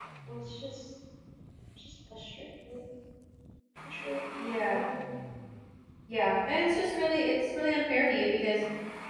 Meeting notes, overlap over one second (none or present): none